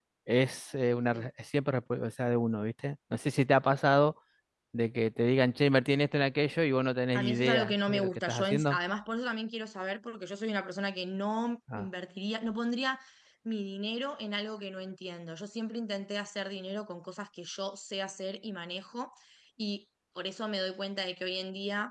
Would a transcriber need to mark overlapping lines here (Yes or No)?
Yes